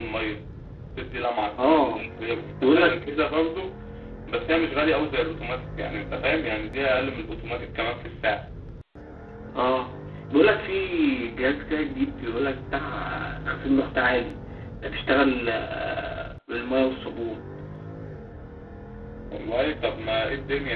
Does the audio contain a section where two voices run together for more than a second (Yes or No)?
No